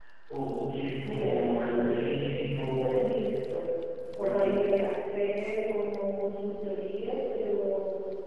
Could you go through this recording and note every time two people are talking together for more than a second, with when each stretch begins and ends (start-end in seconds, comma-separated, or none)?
1.0-3.0